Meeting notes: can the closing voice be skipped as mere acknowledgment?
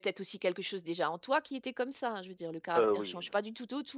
Yes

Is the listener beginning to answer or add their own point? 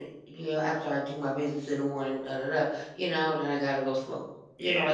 No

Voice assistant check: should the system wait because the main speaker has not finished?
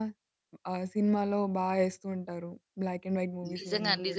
No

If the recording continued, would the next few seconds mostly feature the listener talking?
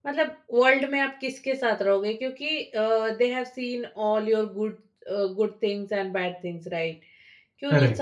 No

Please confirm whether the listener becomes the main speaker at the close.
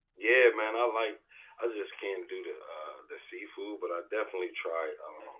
No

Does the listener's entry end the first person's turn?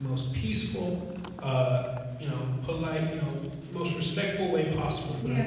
No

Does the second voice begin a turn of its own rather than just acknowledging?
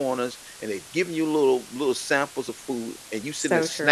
No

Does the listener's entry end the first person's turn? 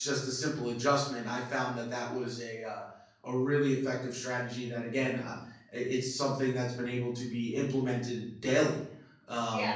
No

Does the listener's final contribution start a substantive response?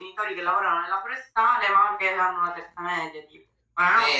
Yes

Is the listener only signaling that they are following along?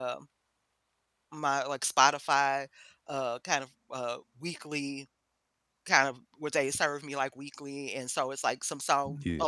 Yes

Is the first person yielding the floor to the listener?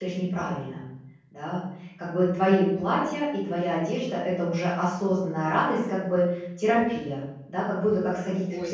Yes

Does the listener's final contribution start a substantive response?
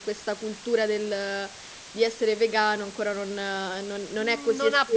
Yes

